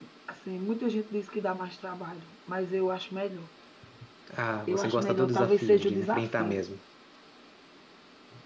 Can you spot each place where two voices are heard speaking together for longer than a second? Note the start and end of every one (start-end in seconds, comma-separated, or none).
4.7-6.6